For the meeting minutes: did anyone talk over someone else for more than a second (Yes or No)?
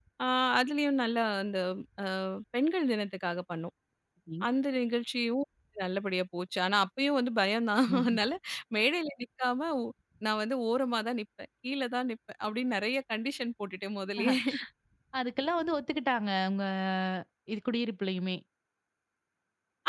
No